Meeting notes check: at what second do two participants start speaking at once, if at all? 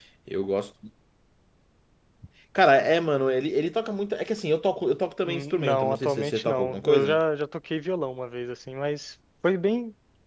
5 s

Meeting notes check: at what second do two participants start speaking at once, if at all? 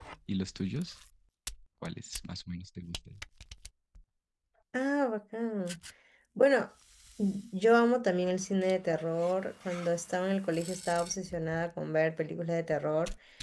none

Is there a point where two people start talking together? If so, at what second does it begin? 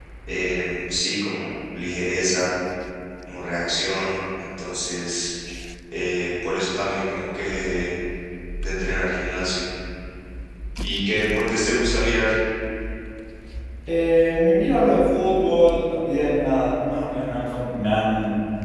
none

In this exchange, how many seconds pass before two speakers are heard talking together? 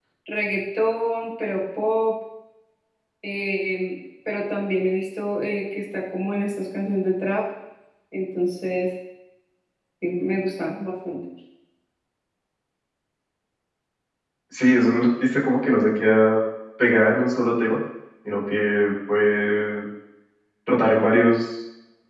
none

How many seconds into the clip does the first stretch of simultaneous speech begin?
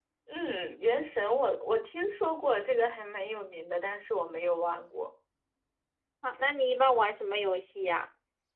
none

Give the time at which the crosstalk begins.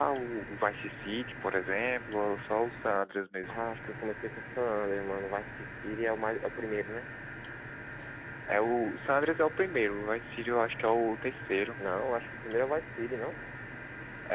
none

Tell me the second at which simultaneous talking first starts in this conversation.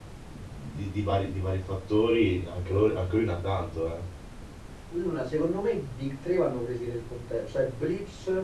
none

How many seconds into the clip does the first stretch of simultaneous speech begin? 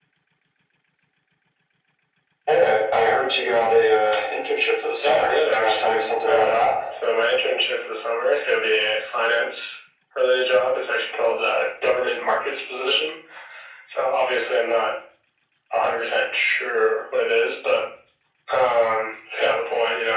5 s

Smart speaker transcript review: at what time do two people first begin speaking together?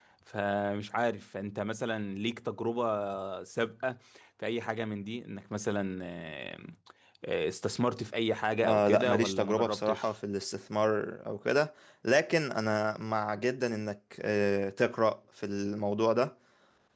9 s

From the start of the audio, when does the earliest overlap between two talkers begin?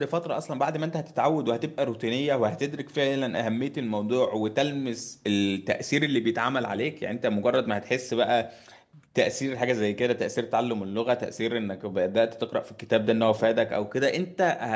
none

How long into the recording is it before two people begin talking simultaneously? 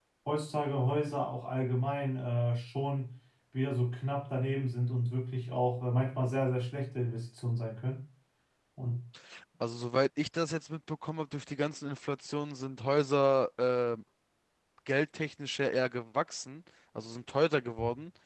none

